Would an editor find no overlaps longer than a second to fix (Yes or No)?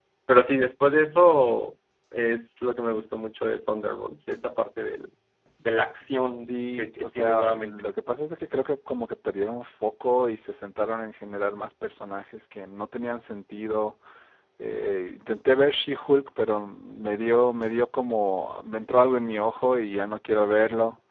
No